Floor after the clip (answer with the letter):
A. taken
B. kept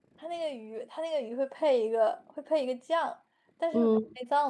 B